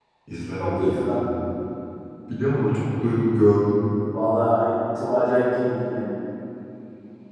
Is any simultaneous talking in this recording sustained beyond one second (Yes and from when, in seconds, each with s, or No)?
No